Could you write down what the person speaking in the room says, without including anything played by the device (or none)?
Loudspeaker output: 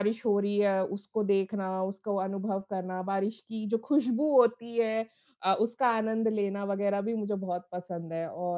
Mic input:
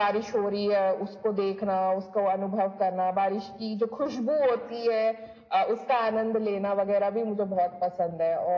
none